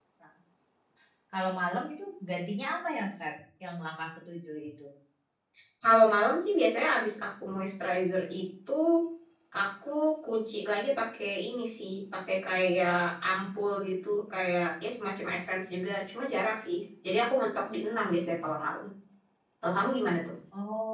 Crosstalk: none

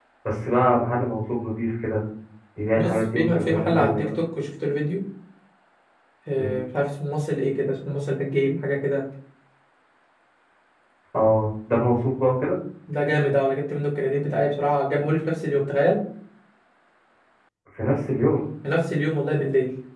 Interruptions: present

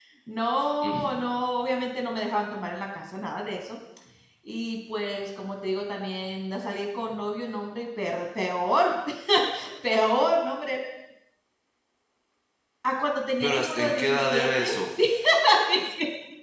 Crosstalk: present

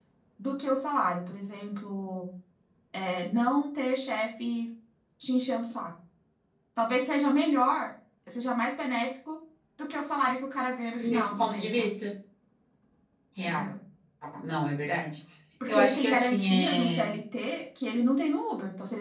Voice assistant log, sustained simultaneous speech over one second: present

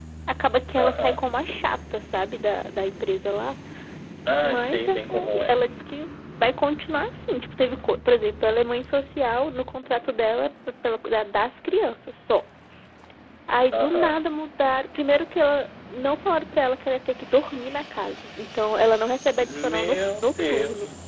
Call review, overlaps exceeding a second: present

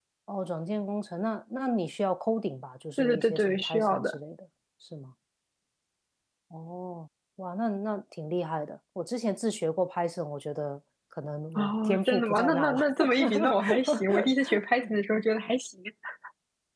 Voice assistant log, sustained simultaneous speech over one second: present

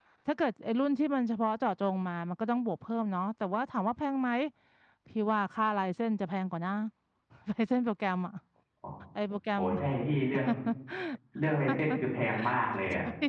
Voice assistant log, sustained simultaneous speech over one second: none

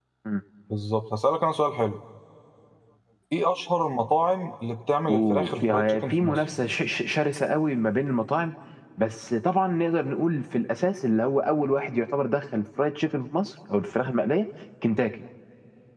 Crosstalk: present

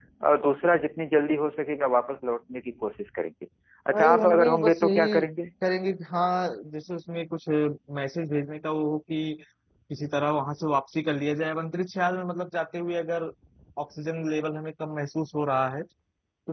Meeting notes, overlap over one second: present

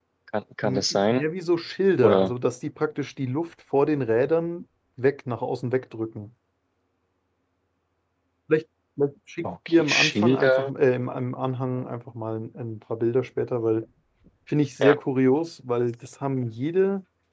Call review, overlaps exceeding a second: present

